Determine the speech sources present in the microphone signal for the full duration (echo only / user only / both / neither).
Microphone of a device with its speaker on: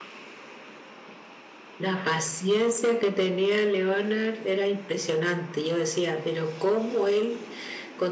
echo only